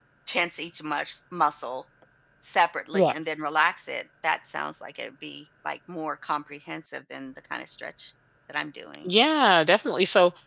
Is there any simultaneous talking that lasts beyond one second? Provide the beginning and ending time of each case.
none

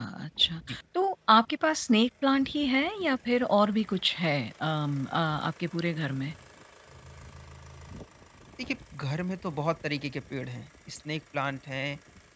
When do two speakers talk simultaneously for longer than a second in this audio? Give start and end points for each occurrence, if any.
none

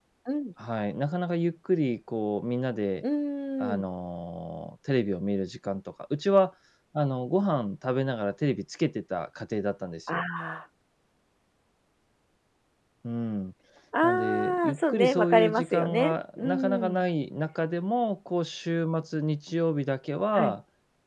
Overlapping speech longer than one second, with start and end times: 14.0-17.0

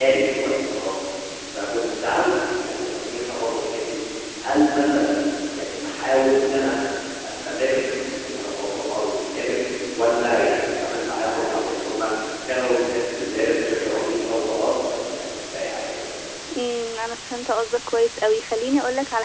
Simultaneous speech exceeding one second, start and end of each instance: none

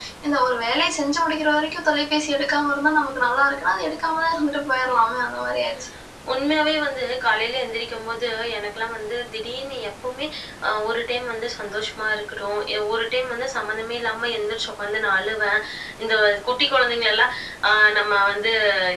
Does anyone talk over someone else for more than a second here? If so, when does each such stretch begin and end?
none

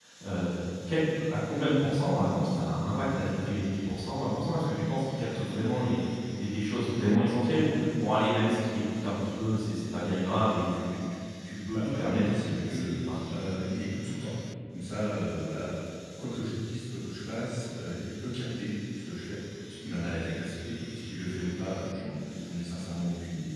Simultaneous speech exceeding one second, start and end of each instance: 11.7-12.9

